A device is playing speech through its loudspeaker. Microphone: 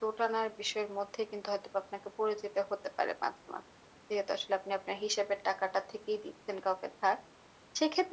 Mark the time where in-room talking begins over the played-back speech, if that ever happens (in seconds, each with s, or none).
none